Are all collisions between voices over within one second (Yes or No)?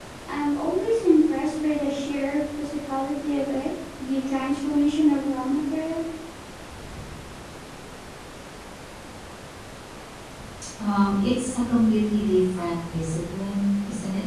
Yes